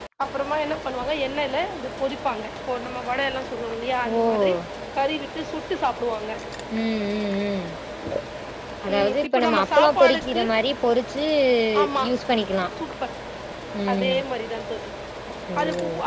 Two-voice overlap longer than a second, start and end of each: 8.9-10.4

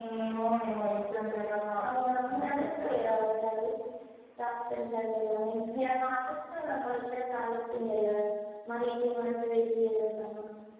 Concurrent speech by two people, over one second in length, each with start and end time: 1.8-3.2

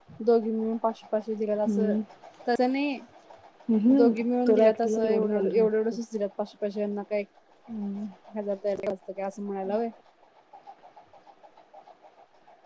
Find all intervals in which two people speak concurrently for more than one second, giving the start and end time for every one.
4.5-5.9

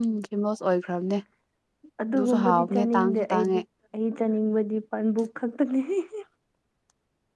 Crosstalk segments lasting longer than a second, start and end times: 2.1-3.6

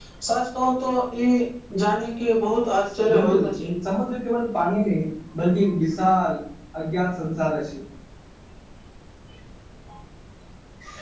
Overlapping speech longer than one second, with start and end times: none

